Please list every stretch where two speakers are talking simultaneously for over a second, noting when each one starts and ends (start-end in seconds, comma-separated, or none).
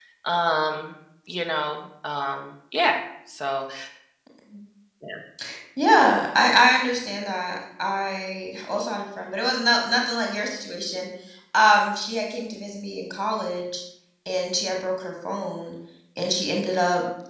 none